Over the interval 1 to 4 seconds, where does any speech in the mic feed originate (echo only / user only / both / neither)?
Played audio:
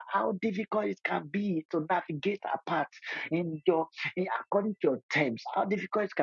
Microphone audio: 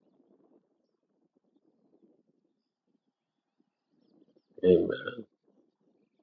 neither